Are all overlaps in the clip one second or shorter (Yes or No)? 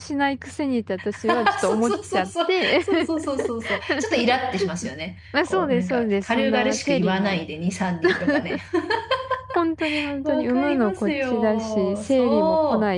No